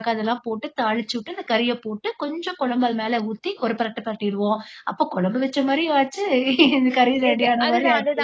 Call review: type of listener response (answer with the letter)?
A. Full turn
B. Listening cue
A